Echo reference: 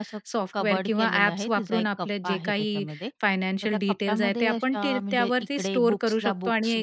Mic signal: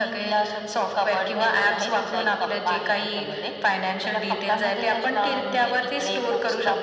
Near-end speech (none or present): none